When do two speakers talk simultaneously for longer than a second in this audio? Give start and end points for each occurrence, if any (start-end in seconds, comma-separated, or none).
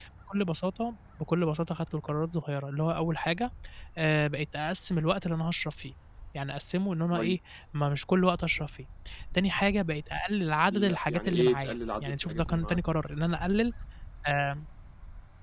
10.7-12.8